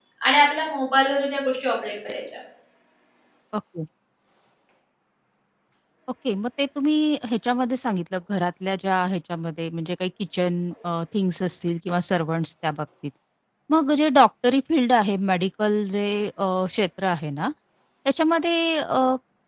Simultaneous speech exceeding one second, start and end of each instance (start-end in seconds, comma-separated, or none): none